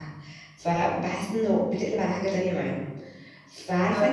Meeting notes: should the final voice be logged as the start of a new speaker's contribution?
No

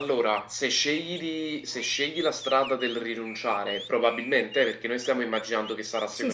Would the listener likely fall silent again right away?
Yes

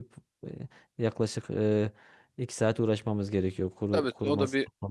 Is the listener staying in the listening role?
No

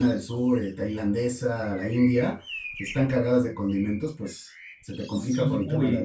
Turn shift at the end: Yes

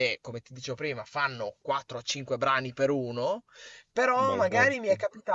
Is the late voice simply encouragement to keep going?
Yes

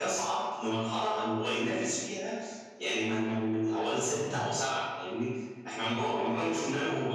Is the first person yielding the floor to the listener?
No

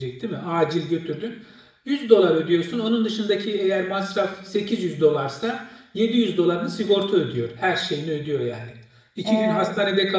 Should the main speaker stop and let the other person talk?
No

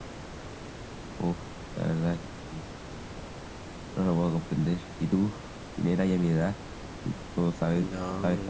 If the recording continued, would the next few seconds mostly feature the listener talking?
Yes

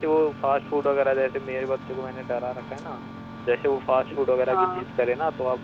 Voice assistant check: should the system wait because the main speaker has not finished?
Yes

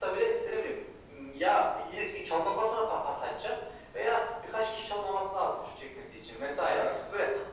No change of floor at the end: Yes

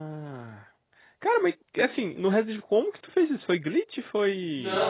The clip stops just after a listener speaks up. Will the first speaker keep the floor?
No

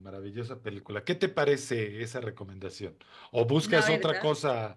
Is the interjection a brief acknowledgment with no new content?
Yes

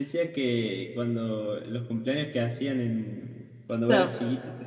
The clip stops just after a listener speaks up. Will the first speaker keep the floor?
Yes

